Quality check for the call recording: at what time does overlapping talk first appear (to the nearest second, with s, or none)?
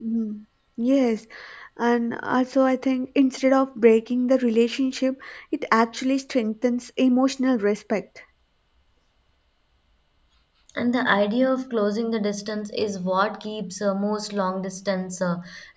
none